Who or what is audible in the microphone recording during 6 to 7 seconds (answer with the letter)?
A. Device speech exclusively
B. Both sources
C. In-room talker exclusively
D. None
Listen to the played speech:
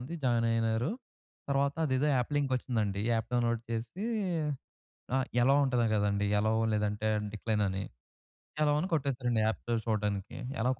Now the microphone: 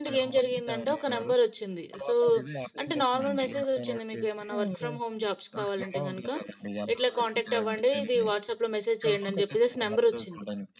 B